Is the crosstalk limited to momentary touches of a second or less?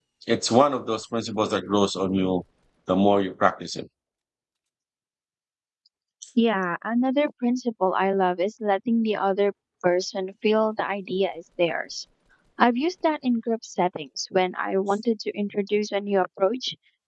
Yes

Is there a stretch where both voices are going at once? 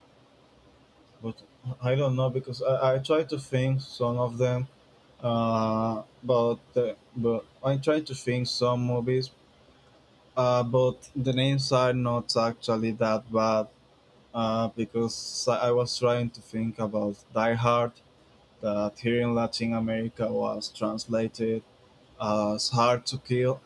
No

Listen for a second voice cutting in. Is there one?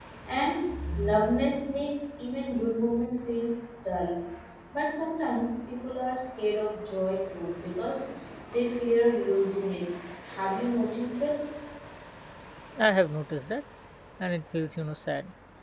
No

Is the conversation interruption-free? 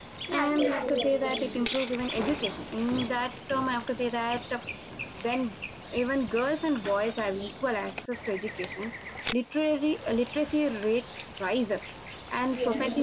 No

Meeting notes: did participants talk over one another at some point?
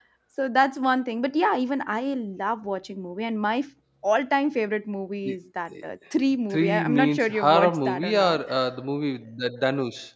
Yes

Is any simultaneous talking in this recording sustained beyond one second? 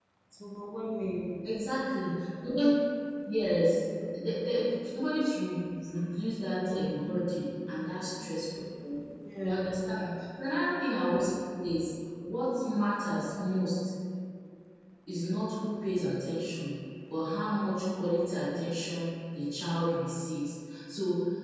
No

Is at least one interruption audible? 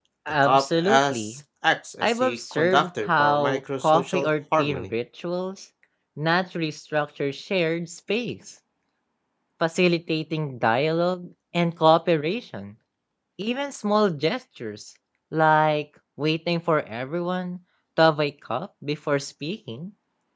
Yes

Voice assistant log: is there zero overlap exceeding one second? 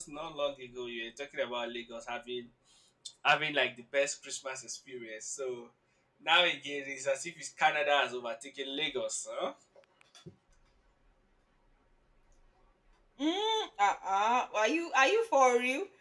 Yes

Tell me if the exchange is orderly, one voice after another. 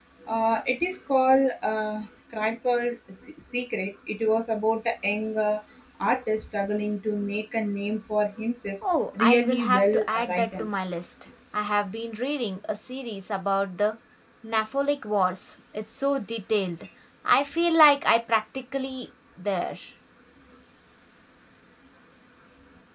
No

